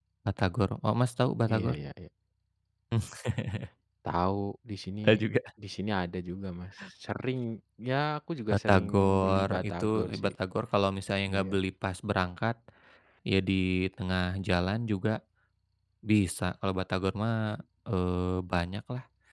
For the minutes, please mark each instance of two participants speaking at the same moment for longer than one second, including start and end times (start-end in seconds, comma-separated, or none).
8.5-10.3